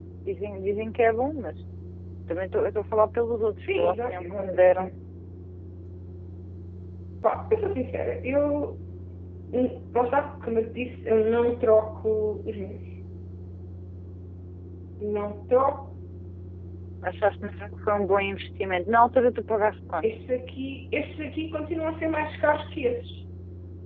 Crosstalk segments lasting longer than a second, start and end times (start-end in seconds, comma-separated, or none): 3.6-4.9